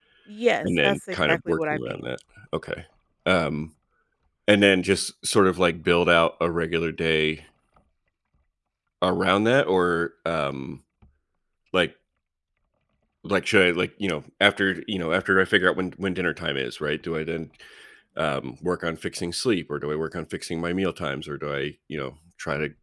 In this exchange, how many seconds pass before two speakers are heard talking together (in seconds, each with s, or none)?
0.6 s